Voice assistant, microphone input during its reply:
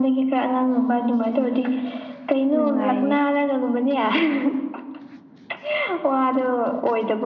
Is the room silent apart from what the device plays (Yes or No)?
No